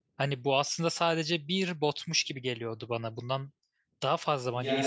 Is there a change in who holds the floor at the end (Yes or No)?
Yes